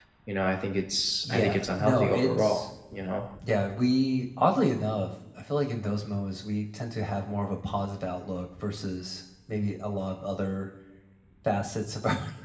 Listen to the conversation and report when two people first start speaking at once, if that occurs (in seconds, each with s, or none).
1.2 s